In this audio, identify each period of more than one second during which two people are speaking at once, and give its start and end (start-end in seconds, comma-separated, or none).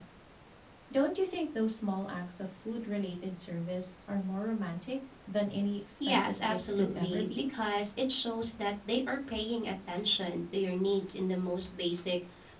6.1-7.4